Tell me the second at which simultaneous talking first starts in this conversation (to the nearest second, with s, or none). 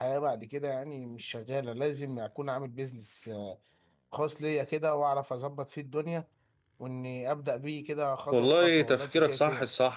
8 s